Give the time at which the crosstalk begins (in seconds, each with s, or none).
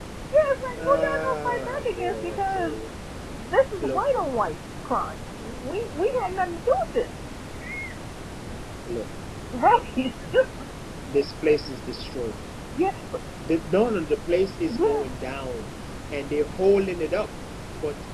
0.8 s